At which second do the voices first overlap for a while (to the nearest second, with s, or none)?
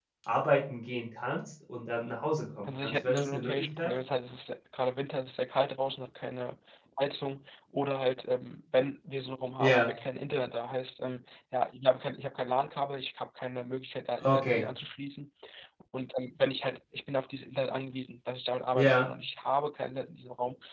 3 s